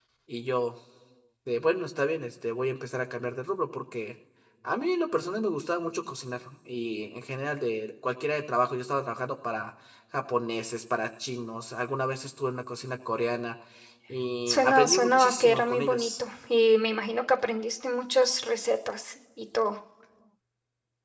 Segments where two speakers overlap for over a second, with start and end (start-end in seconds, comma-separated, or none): 14.5-16.1